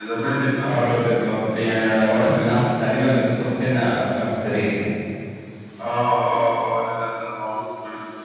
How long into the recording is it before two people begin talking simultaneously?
none

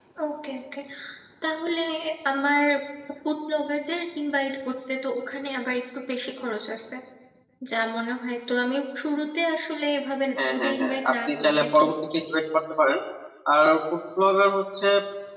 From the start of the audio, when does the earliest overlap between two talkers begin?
10 s

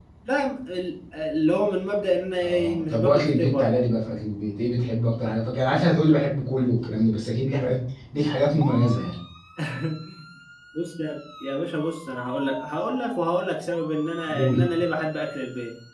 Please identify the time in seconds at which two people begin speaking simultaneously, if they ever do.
2 s

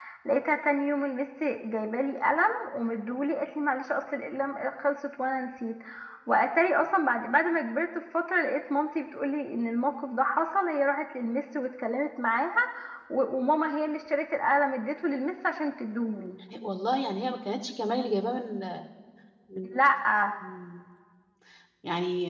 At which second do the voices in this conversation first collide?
none

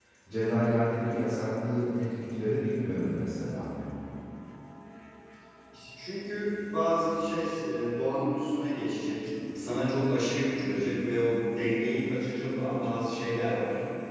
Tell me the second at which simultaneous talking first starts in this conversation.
none

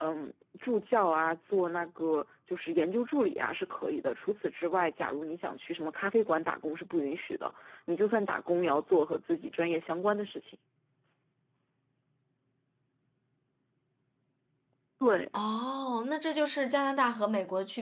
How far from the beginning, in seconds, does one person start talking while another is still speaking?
none

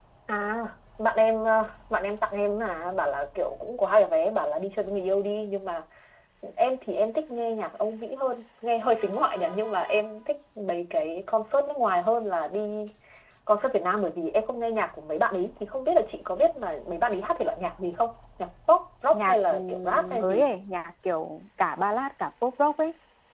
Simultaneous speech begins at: 19 s

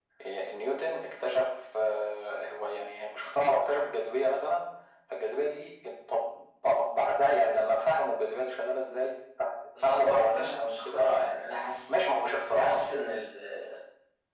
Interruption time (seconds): 10 s

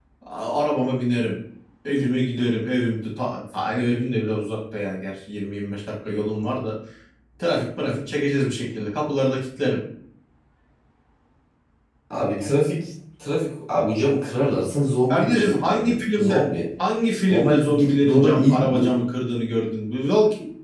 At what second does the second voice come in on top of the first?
15 s

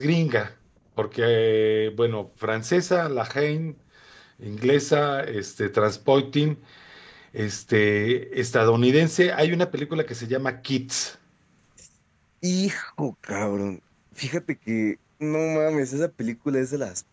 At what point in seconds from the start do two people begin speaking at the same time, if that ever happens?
none

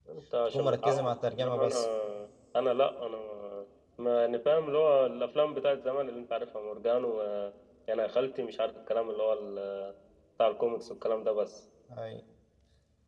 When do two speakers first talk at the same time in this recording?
1 s

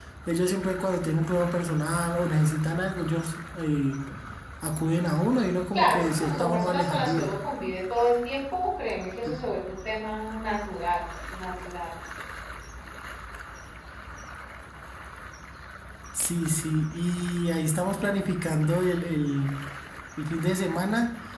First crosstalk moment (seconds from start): 6 s

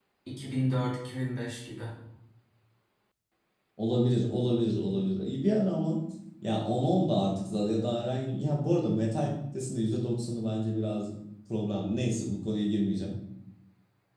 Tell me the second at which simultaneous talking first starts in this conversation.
none

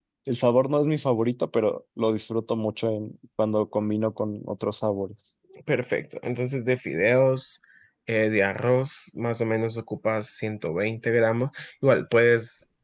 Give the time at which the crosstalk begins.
none

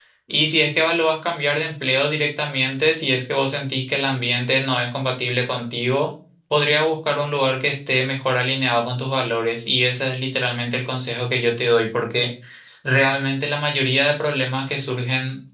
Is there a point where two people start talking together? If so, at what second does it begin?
none

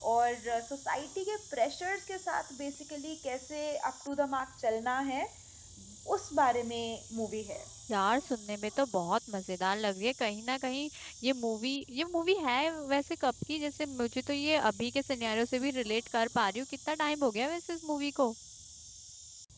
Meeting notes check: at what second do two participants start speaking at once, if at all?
none

